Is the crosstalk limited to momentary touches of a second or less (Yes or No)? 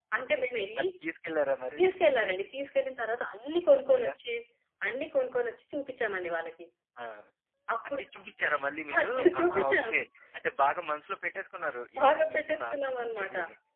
No